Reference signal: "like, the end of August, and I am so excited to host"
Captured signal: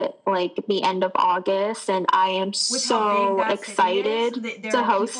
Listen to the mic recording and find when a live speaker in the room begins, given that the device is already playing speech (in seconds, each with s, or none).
2.7 s